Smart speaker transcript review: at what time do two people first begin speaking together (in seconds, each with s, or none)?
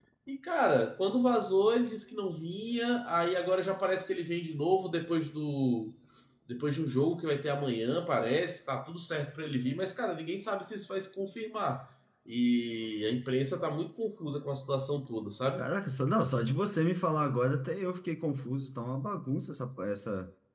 none